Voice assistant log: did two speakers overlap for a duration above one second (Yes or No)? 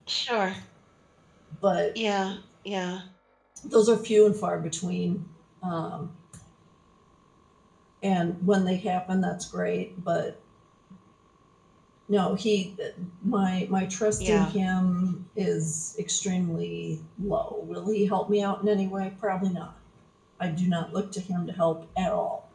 No